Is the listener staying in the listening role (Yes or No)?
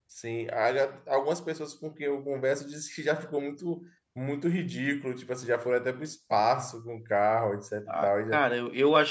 No